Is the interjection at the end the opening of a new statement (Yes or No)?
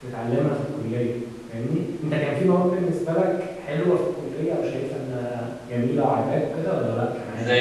Yes